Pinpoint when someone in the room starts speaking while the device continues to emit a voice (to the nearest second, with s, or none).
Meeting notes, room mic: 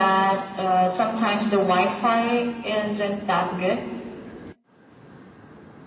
none